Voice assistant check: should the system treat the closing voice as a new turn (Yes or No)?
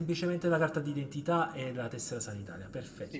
Yes